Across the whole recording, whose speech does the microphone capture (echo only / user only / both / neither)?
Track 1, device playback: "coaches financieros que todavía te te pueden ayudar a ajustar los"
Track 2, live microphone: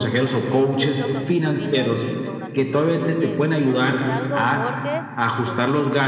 both